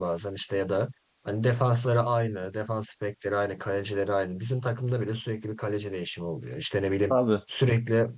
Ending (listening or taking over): listening